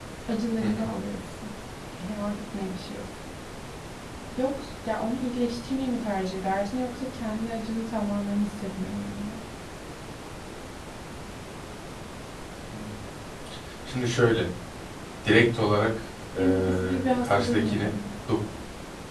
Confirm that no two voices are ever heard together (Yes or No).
No